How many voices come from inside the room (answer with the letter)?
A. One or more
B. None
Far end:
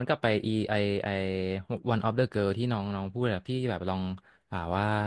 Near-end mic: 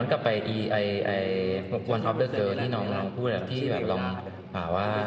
A